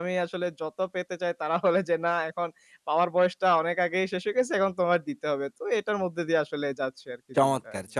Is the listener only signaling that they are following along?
No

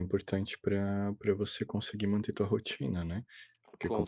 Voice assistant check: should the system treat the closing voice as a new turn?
No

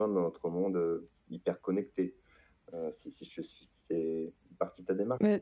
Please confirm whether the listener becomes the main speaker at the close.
Yes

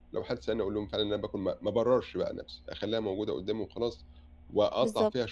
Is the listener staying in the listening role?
Yes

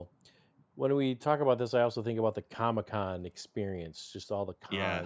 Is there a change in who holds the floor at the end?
No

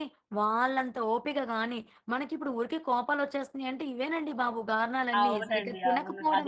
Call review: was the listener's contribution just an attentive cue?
No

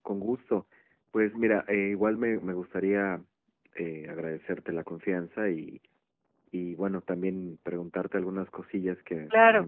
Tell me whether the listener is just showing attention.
Yes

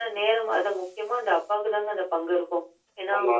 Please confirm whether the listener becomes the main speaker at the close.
No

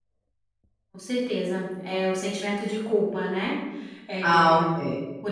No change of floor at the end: No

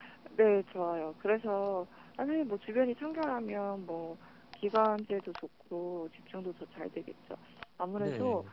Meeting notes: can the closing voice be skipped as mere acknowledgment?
Yes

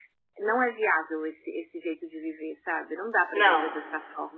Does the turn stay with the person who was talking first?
Yes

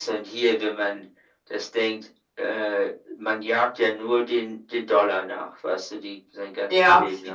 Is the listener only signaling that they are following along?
No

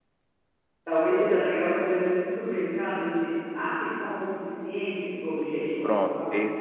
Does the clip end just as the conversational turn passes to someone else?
Yes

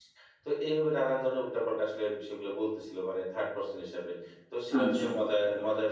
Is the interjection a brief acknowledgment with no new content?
Yes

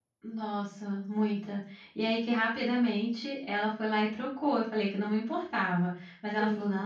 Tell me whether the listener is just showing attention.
Yes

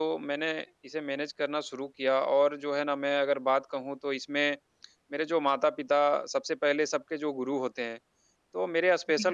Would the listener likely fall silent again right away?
Yes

